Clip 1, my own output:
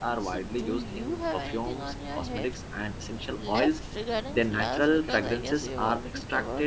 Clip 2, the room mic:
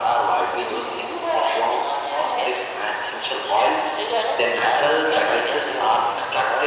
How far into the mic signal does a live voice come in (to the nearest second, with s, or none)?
none